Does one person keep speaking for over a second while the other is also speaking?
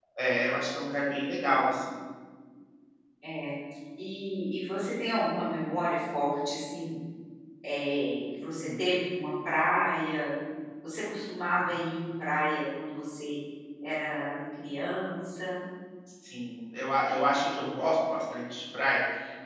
No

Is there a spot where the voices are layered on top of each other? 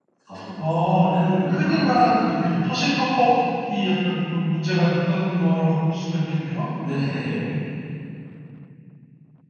Yes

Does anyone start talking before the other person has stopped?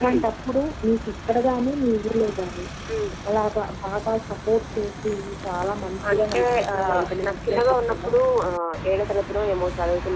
Yes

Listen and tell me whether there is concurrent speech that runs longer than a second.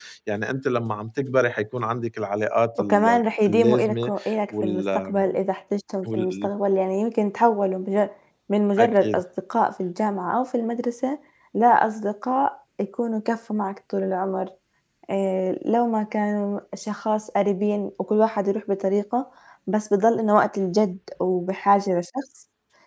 Yes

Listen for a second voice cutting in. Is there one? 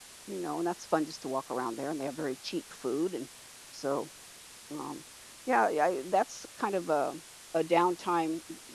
No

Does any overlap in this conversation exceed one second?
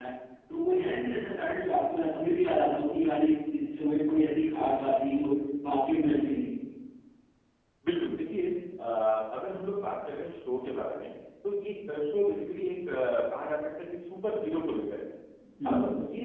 No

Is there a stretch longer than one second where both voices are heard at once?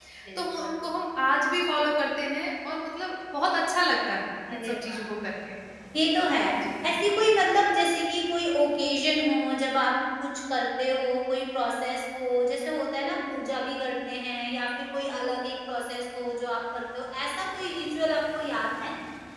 No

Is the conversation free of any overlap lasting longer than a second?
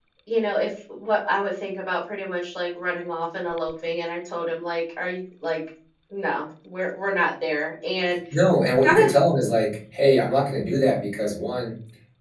Yes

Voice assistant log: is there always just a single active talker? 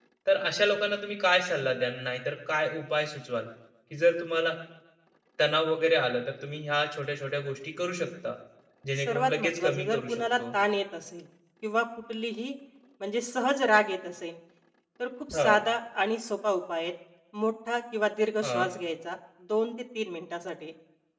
No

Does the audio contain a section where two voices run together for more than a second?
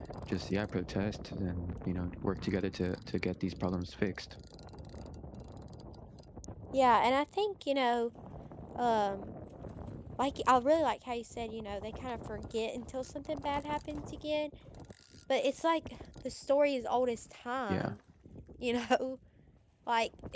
No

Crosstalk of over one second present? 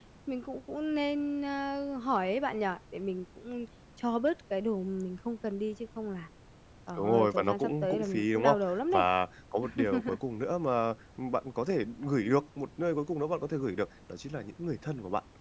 Yes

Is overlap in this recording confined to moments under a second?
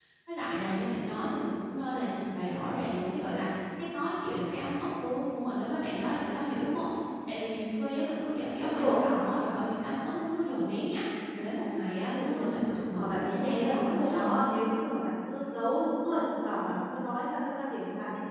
No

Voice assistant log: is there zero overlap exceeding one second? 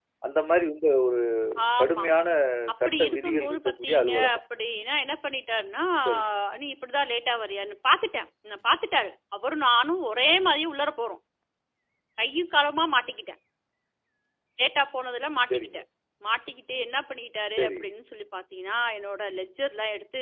No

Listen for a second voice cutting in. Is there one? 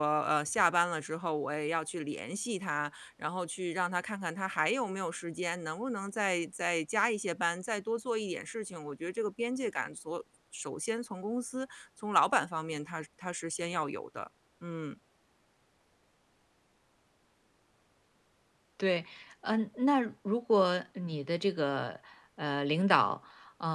No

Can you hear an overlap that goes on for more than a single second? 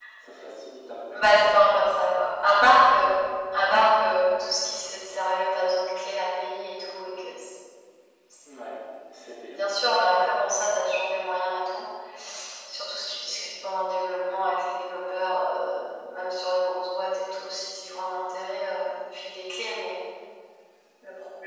No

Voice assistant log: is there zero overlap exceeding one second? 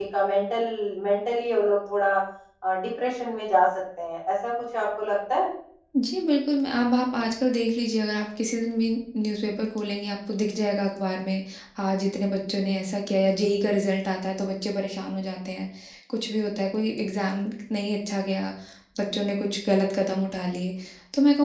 Yes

